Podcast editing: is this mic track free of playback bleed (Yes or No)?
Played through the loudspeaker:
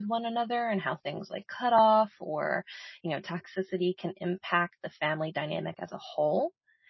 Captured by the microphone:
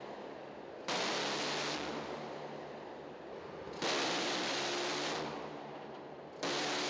Yes